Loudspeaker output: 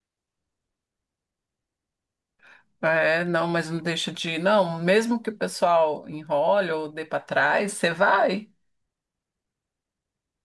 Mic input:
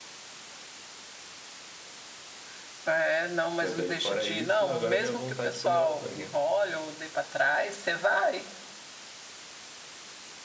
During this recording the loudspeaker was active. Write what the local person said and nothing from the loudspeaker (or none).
Mas aí, fora isso, agora veio a vontade de comer lasanha.